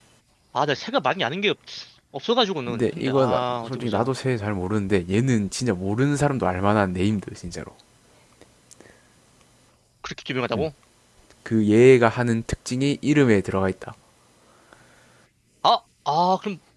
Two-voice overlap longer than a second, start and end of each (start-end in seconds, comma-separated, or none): 2.7-4.1